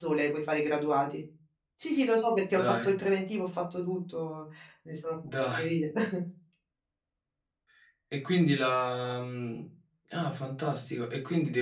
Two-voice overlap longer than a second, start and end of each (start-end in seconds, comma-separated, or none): none